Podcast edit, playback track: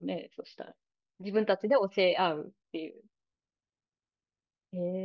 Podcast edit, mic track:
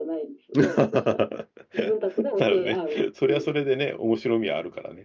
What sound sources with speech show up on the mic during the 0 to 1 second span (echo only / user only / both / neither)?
both